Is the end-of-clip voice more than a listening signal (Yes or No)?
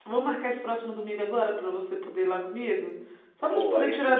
Yes